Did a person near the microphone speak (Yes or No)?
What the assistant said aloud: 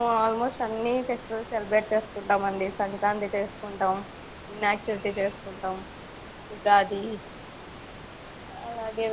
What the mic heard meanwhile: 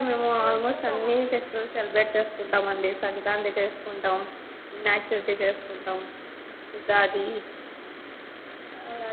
Yes